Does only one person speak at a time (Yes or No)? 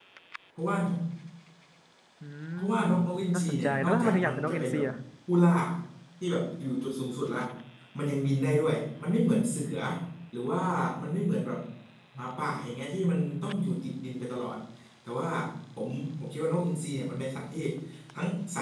No